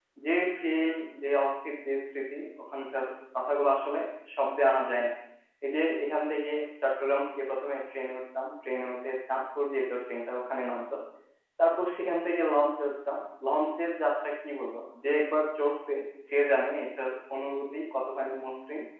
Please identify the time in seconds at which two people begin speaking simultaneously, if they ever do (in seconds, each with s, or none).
none